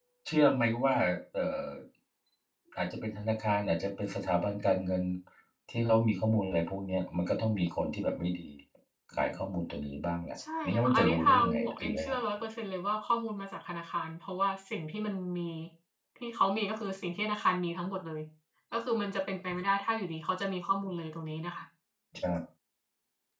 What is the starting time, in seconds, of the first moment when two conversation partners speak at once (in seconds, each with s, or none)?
10.6 s